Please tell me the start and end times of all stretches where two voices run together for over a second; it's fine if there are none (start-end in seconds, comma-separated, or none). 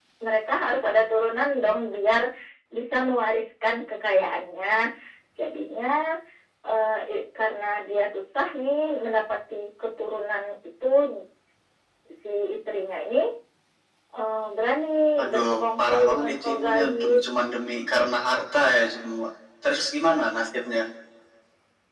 15.3-17.2